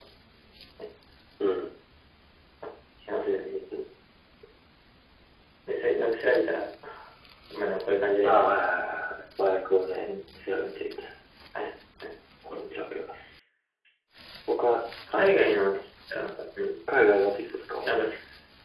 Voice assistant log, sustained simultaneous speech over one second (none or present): none